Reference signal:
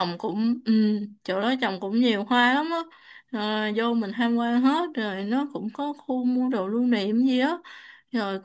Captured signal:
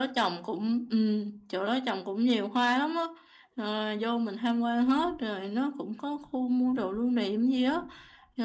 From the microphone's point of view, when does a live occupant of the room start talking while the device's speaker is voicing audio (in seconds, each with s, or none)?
none